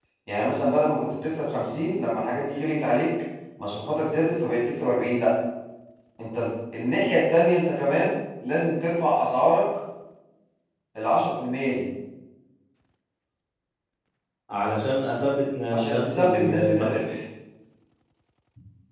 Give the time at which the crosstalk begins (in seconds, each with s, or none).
15.7 s